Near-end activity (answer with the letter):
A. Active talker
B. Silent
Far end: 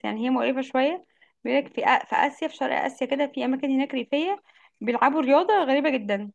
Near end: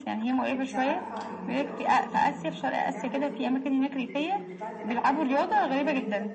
A